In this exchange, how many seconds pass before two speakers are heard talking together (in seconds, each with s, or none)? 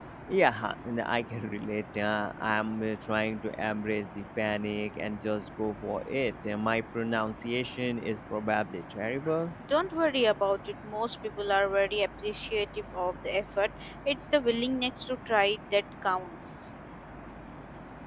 none